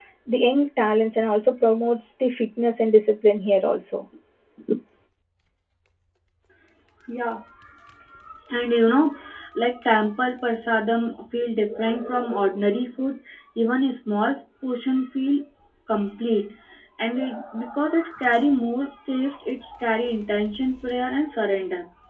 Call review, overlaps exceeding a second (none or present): none